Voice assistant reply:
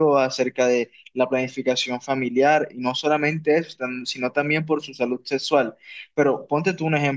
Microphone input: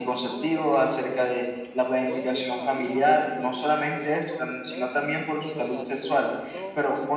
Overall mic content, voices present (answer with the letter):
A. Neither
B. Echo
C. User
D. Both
D